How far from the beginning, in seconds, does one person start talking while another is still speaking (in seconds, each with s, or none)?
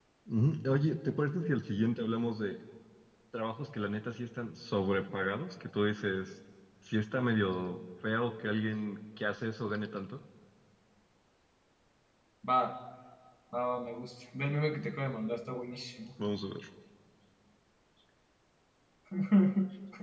none